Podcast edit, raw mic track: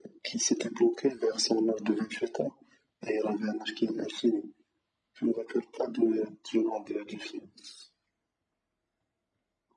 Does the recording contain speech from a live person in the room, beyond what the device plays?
No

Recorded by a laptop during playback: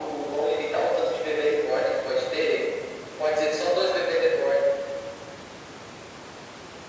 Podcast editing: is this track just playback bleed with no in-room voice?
Yes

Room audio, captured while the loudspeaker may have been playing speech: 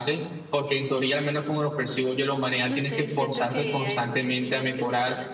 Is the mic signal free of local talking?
No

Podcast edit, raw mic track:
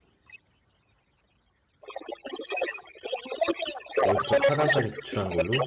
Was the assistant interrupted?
Yes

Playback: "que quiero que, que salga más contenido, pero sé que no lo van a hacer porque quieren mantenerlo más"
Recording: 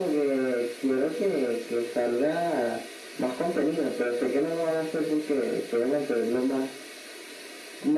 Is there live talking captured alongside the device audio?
No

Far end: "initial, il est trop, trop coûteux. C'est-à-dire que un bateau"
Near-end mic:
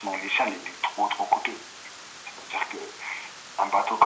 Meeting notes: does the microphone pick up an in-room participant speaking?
No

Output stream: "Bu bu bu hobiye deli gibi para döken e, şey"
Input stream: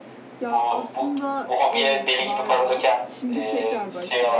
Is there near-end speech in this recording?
Yes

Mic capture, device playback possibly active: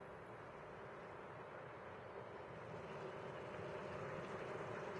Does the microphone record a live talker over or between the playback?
No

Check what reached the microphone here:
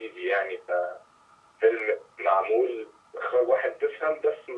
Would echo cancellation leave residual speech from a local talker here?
No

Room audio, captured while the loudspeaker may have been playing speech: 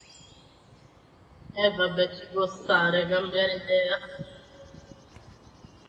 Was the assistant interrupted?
Yes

